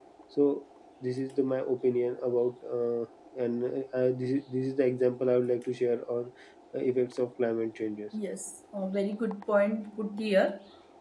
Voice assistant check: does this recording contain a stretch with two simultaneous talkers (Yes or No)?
No